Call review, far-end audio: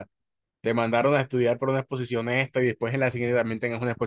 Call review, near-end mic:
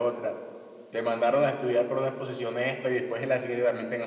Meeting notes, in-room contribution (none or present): none